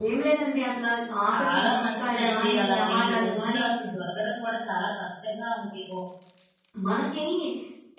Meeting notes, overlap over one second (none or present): present